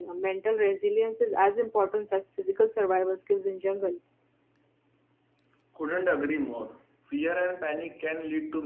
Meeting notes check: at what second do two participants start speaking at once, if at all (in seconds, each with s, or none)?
none